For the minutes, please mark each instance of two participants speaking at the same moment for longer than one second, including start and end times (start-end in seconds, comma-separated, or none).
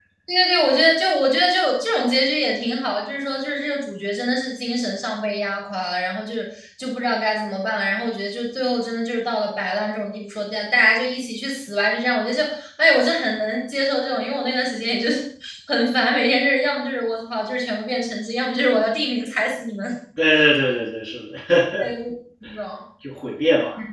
none